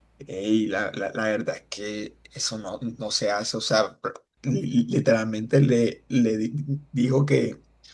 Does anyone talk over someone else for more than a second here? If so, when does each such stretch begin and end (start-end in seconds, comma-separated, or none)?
none